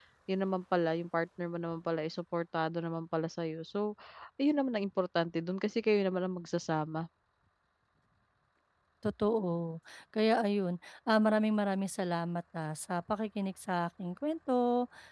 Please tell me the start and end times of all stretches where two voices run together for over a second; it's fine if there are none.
none

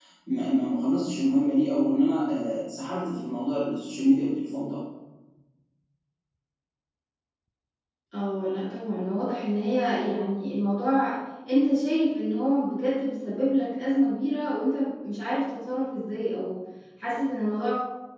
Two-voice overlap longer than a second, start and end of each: none

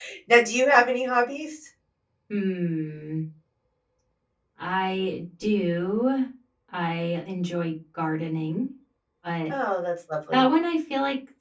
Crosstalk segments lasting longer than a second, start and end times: none

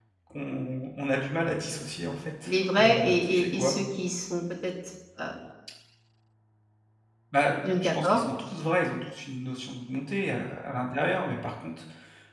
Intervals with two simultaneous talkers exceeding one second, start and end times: 2.4-3.8

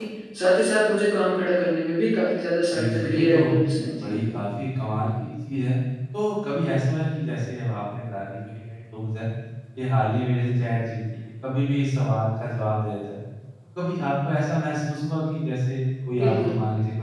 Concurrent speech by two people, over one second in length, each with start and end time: 2.7-4.1

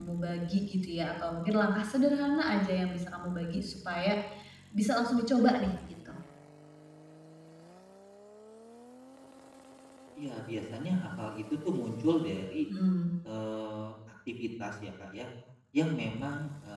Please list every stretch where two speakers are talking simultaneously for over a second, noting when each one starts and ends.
none

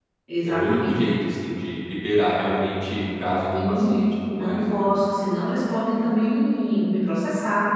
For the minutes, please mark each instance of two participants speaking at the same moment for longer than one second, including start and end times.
none

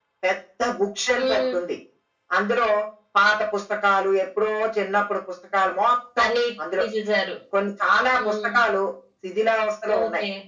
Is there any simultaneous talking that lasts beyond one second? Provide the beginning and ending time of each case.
none

